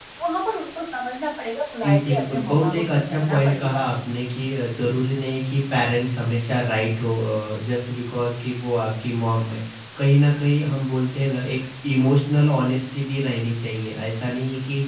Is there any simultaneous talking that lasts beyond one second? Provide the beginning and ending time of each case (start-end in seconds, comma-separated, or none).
1.8-3.8